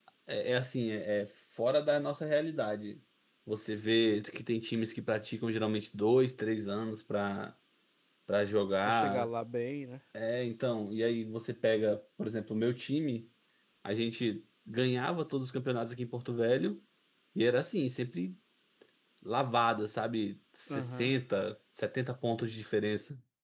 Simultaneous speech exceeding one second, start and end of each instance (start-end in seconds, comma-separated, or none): none